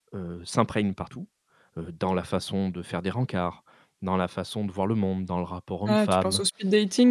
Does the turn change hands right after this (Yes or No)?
Yes